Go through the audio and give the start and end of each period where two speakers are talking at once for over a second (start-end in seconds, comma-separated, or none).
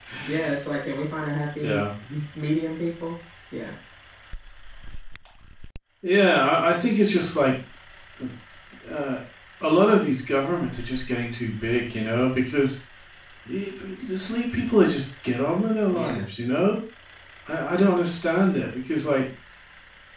none